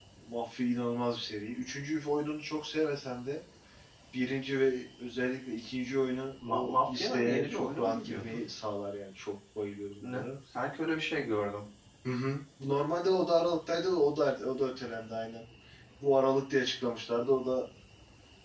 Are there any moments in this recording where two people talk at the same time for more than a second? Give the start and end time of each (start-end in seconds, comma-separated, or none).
6.5-8.4